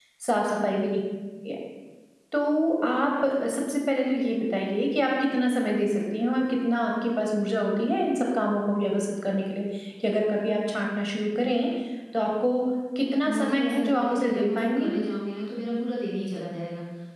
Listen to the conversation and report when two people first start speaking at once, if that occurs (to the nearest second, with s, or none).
13 s